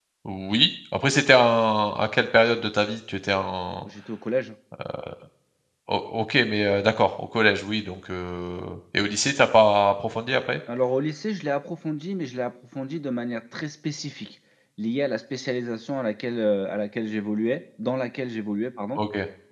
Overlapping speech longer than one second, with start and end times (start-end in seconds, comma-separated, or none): none